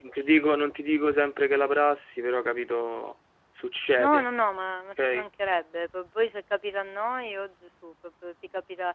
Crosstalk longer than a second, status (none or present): none